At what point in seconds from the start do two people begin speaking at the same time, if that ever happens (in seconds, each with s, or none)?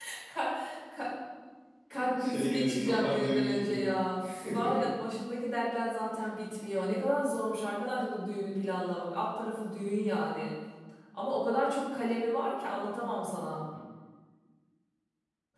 2.2 s